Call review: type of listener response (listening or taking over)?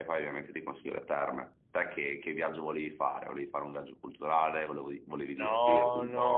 taking over